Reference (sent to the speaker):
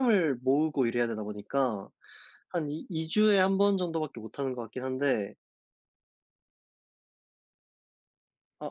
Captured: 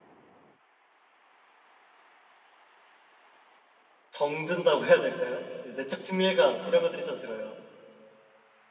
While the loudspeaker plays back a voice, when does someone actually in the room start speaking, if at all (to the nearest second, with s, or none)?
4 s